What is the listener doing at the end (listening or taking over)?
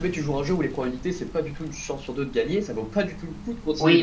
taking over